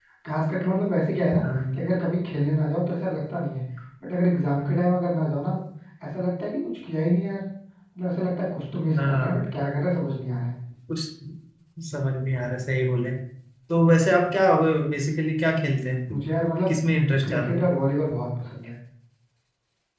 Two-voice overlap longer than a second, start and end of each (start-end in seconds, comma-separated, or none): none